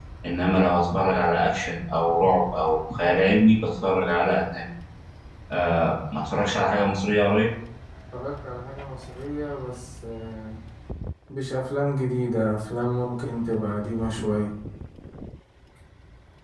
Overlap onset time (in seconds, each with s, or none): none